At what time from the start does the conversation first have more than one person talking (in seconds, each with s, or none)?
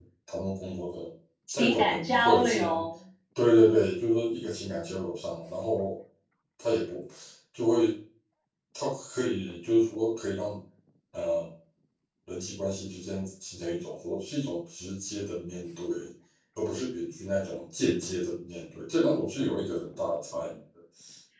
1.5 s